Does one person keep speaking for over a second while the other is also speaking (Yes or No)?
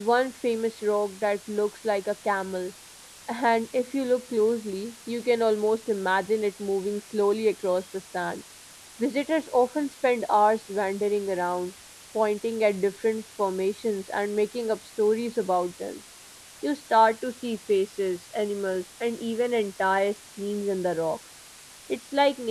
No